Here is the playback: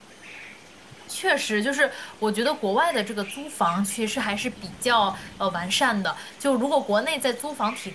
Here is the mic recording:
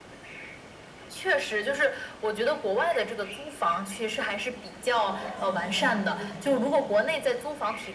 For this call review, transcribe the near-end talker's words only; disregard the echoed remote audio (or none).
就是老百姓现在有租房的需求了，